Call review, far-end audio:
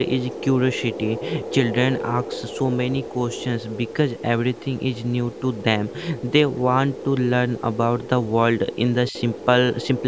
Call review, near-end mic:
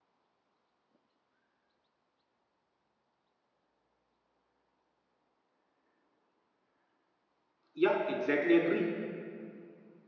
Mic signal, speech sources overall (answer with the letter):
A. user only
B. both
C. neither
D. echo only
A